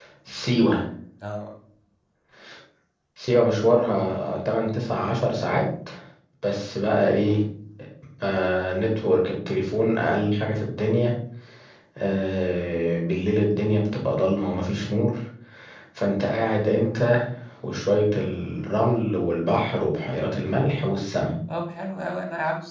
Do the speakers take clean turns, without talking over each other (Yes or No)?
Yes